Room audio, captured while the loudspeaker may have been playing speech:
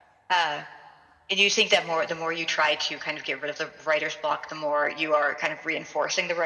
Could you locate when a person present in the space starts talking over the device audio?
none

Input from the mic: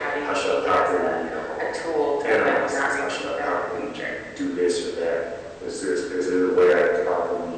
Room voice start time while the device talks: none

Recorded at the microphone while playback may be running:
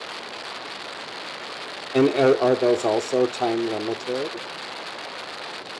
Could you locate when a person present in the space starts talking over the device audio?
2 s

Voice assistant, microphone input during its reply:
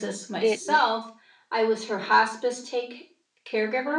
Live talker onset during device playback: 0 s

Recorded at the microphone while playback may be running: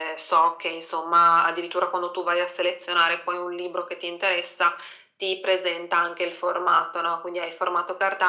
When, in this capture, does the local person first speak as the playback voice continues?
none

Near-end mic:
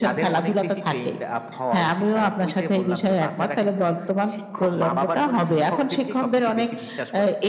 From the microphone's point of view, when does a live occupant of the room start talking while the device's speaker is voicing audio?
none

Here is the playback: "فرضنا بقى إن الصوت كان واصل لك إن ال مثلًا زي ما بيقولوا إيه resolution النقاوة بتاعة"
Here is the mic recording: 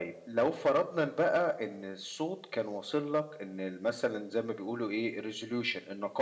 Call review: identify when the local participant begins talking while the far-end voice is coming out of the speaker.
none

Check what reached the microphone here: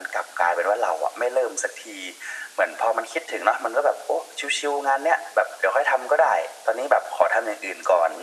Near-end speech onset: none

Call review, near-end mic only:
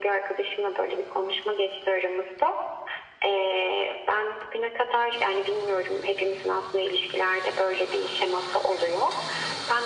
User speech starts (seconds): none

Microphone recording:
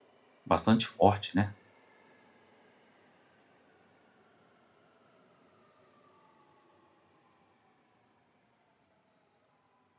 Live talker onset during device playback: 0 s

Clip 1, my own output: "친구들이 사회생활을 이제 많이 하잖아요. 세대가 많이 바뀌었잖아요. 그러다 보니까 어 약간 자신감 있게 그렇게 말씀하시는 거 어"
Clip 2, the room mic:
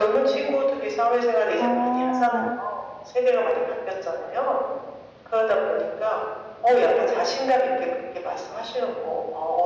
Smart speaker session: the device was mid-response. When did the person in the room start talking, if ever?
2 s

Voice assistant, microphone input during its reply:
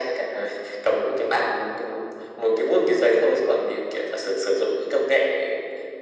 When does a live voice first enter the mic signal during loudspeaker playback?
none

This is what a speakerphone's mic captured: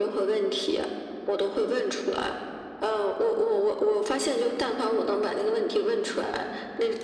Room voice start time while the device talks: none

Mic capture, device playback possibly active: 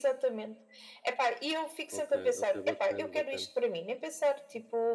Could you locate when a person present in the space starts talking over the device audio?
2 s

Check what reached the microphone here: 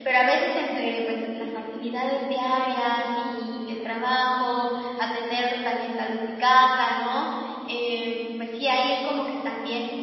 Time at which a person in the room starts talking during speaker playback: none

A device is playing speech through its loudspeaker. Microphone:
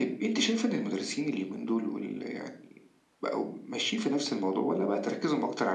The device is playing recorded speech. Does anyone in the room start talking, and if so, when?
none

